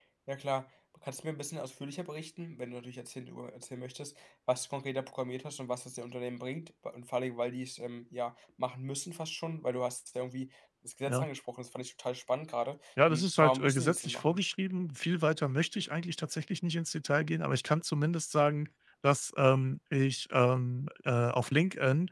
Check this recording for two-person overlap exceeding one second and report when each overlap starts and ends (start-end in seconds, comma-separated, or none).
13.1-14.4